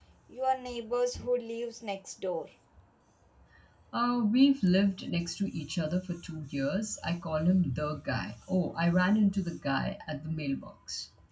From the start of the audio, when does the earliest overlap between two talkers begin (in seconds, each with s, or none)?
none